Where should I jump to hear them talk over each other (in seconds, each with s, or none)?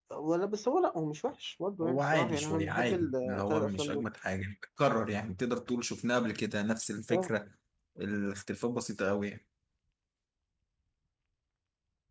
1.8 s